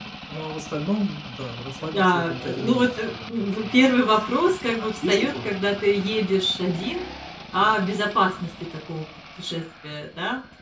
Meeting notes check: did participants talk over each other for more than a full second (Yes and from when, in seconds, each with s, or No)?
Yes, from 1.9 s